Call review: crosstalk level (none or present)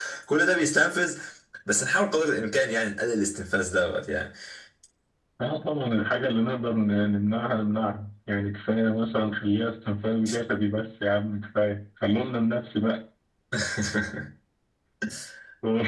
none